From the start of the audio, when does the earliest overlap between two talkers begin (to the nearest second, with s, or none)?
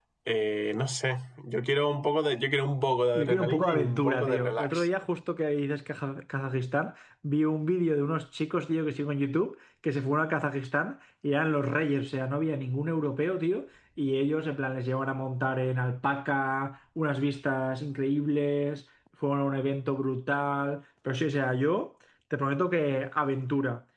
3 s